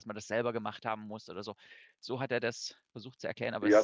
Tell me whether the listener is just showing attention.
No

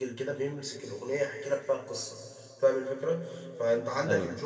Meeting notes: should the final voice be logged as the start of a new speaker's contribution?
No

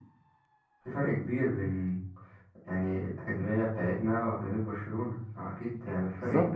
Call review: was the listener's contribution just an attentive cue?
No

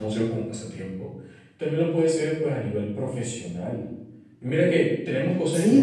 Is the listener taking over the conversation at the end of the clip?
Yes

